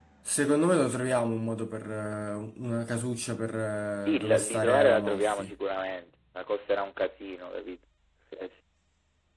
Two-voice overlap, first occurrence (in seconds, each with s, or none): 4.1 s